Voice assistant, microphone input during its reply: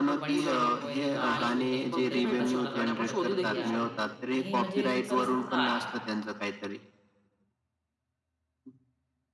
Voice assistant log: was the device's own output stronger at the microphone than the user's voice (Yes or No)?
Yes